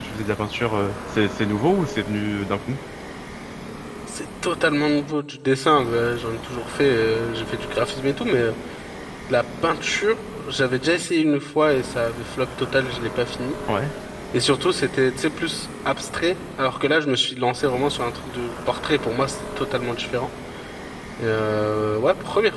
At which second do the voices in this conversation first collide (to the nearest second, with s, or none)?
none